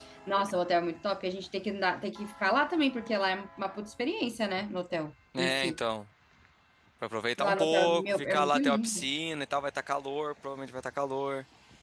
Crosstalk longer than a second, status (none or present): present